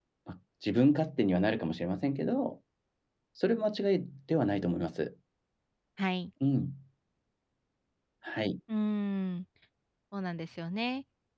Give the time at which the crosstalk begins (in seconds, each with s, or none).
none